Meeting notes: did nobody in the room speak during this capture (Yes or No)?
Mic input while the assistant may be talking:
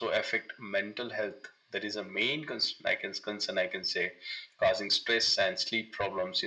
Yes